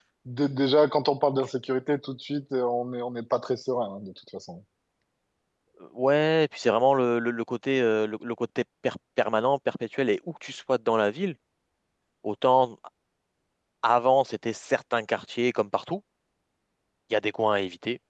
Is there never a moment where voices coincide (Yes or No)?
Yes